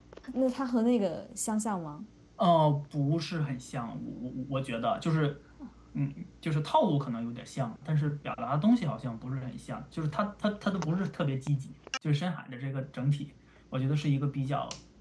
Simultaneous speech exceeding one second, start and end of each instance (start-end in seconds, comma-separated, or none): none